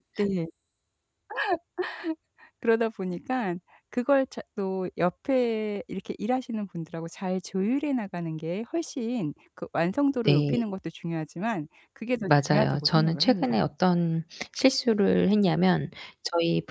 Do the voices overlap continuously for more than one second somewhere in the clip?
Yes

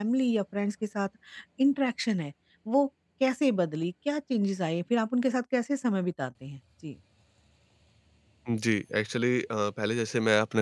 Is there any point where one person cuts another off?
No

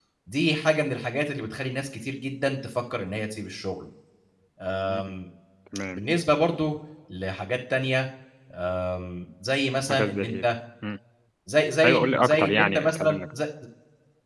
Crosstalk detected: Yes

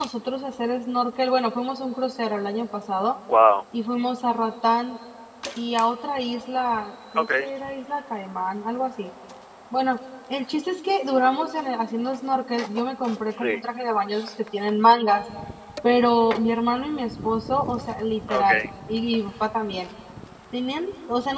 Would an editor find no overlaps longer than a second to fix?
Yes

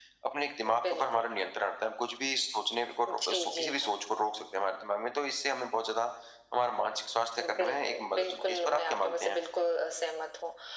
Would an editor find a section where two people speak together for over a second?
Yes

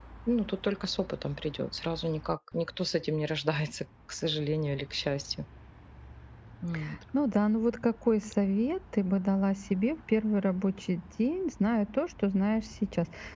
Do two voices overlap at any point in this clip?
No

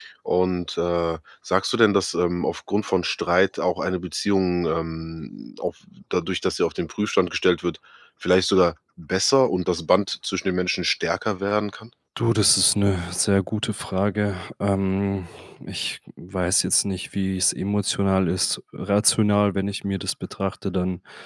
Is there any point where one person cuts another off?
No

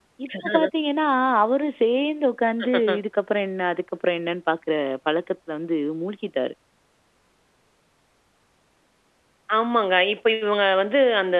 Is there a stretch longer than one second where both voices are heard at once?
No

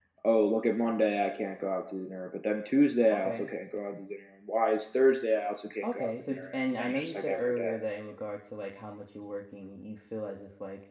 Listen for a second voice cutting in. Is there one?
Yes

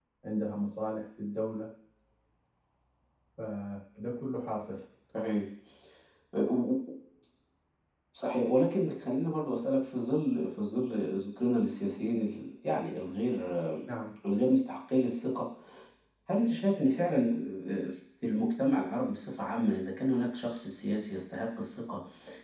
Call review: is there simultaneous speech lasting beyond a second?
No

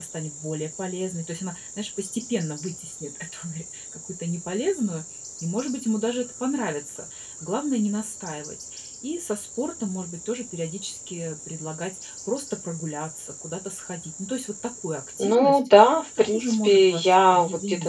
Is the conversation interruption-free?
No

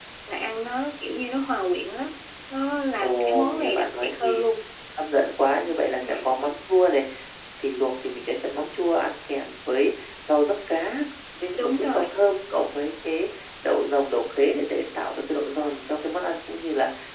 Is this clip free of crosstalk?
No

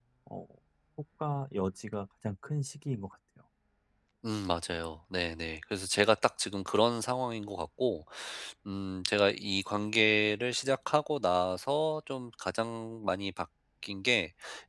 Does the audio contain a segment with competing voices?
No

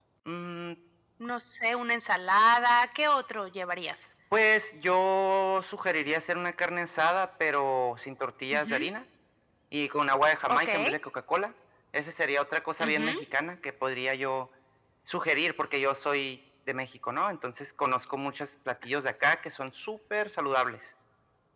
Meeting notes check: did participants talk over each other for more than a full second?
No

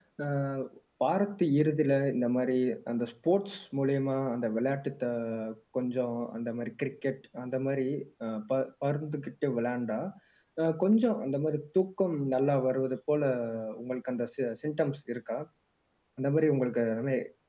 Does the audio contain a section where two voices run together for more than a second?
No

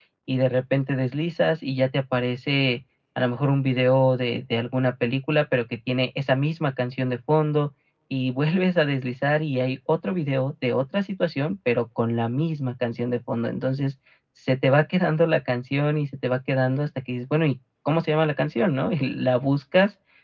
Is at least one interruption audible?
No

